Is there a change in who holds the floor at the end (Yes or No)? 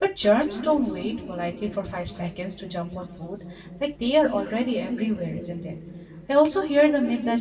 No